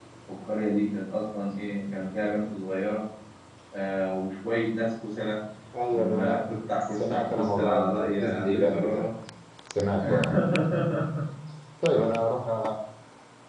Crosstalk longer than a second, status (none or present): present